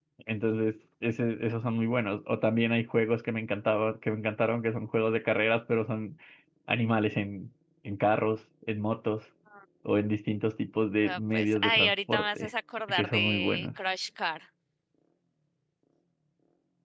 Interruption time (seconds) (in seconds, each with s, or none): 11.0 s